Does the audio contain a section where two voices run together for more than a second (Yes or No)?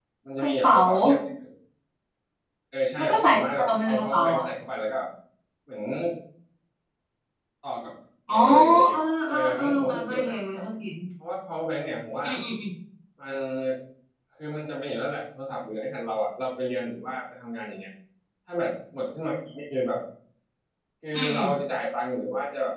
Yes